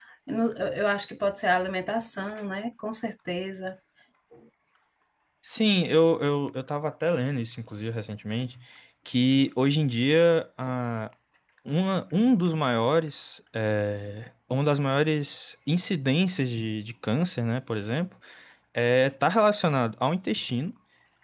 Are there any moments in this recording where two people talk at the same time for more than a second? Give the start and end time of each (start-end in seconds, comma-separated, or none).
none